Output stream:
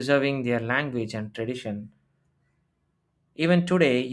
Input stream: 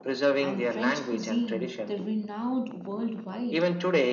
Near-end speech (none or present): present